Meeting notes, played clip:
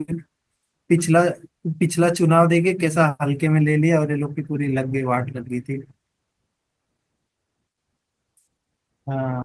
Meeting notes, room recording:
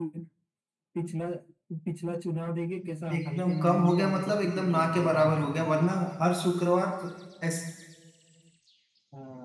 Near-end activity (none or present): present